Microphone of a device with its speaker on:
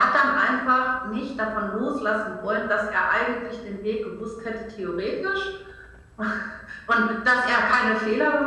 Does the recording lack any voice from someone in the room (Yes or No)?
Yes